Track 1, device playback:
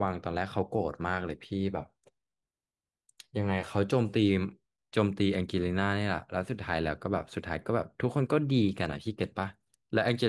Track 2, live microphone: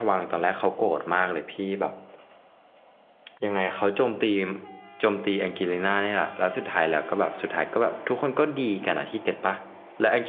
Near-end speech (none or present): none